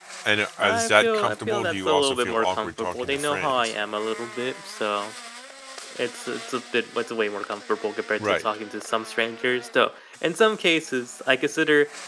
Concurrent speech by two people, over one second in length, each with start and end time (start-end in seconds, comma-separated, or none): 0.6-3.7